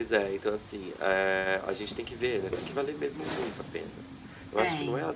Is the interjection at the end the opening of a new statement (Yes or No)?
No